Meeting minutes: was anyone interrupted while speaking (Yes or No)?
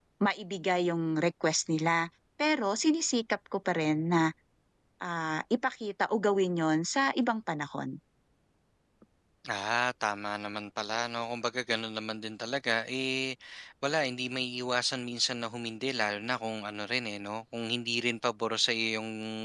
No